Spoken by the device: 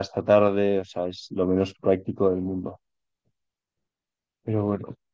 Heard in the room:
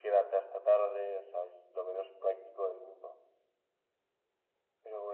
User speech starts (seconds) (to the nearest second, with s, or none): none